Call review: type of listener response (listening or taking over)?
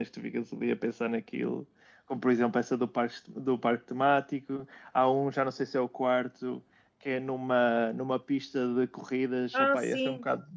listening